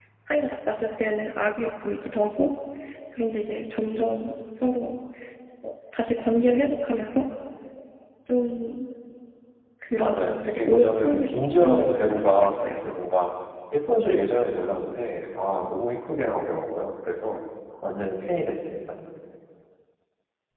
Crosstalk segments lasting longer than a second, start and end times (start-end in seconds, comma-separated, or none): 10.0-12.7